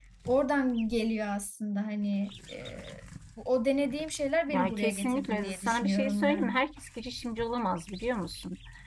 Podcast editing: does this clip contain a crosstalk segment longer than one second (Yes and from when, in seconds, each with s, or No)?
Yes, from 4.5 s